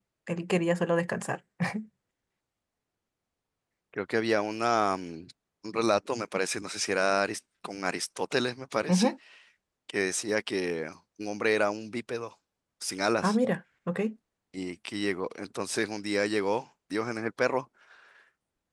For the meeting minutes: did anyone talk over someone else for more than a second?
No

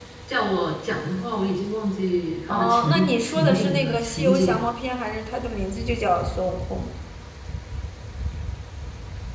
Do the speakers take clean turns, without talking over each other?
No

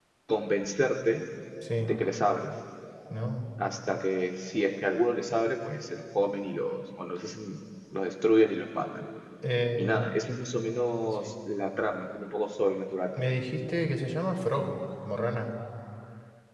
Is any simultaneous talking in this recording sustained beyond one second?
No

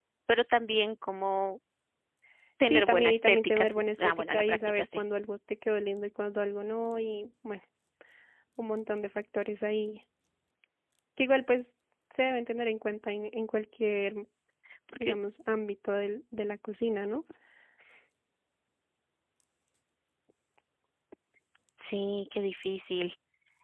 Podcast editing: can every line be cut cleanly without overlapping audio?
No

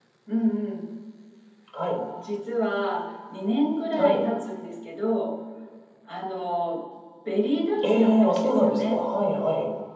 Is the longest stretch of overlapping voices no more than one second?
No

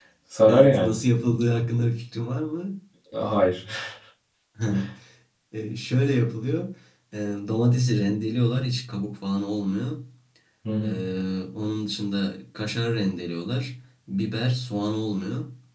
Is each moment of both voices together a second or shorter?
Yes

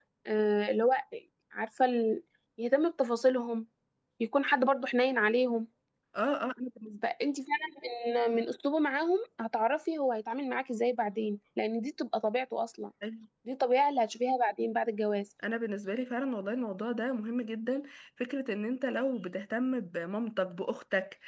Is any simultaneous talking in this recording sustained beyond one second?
No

